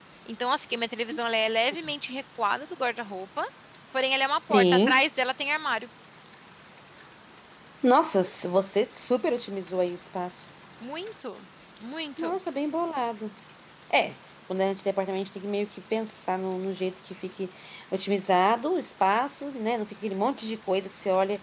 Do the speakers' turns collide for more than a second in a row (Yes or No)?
No